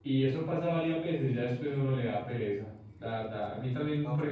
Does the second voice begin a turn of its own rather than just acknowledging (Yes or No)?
Yes